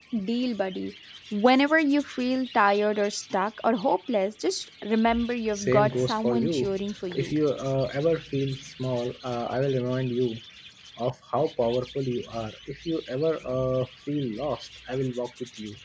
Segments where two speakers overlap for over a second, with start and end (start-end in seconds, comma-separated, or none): 5.5-6.8